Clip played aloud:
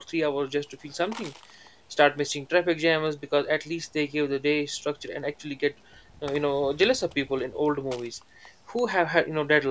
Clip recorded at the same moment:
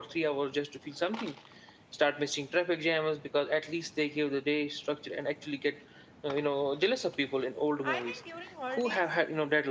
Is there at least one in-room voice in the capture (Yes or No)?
Yes